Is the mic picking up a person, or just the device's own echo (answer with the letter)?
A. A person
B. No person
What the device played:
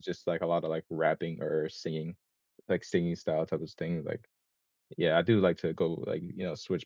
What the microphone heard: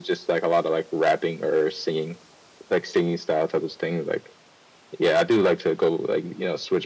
B